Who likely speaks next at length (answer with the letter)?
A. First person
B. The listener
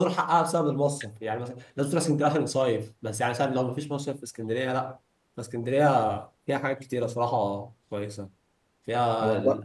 A